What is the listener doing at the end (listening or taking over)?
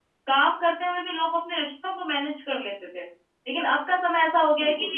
listening